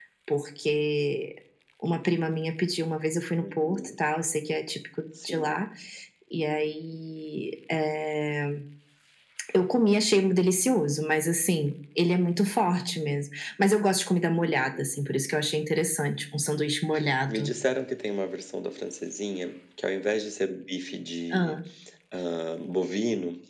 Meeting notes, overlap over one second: none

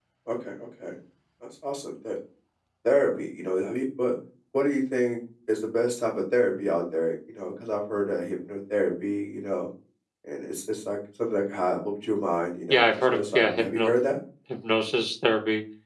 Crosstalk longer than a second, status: present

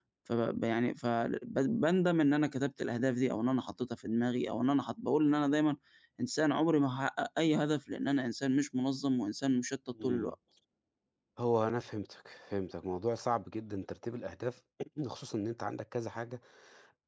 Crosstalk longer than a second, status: none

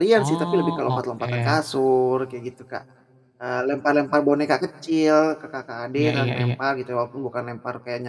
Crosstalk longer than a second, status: present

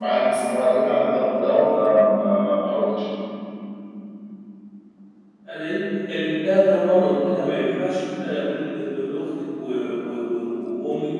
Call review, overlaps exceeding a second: none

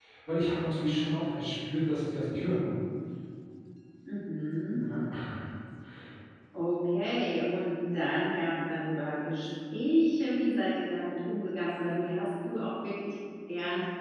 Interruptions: none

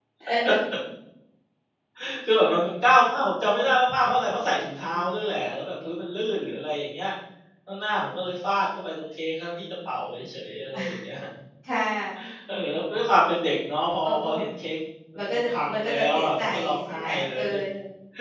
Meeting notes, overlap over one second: present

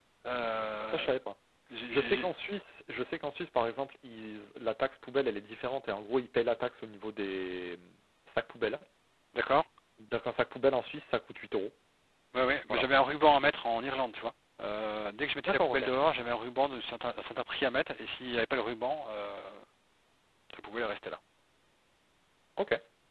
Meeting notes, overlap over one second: none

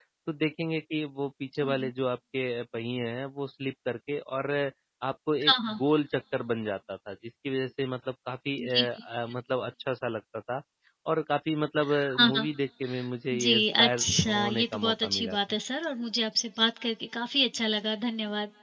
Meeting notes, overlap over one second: present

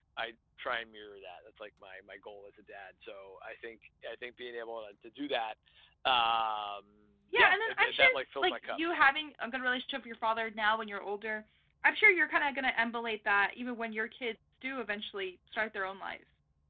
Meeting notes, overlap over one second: present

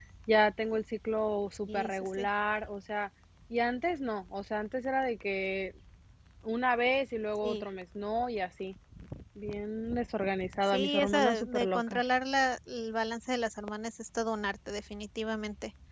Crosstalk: present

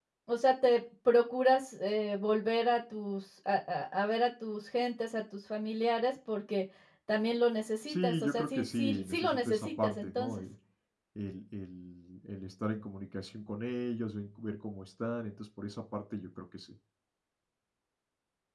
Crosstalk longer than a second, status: present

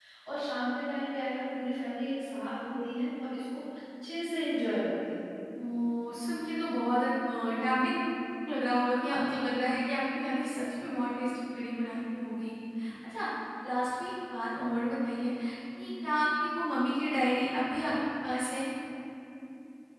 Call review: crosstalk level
none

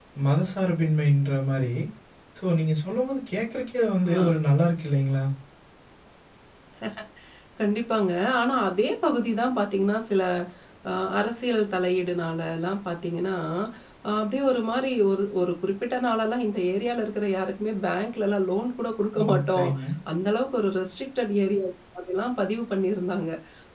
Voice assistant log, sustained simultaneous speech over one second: none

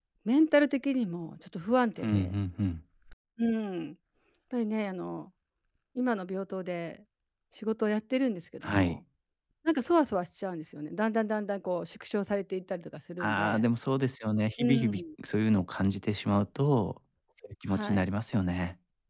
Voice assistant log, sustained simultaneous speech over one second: none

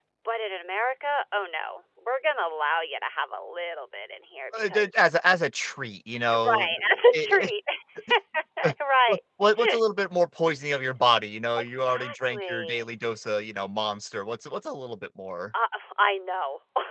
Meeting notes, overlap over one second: present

